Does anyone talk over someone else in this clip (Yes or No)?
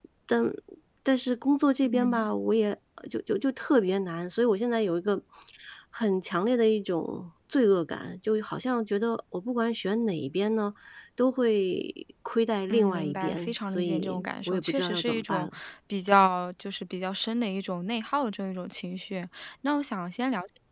Yes